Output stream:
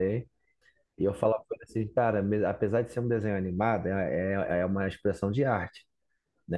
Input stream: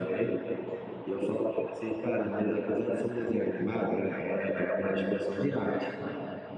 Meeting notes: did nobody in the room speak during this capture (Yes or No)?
Yes